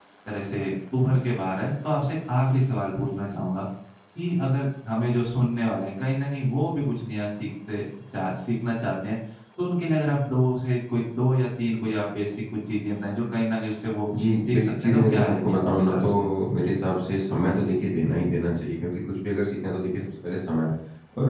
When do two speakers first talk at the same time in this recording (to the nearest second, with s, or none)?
14 s